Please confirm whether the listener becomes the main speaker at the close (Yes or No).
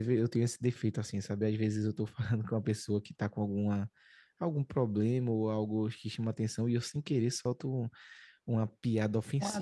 No